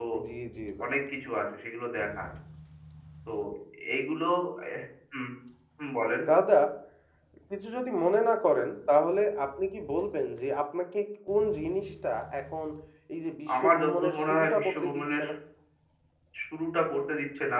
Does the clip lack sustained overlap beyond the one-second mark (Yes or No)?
No